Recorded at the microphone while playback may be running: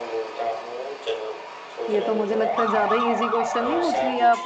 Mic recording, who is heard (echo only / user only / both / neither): both